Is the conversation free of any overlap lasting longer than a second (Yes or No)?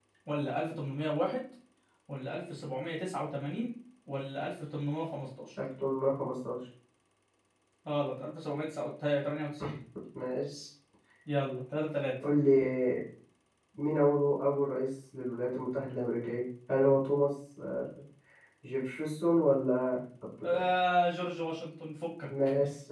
Yes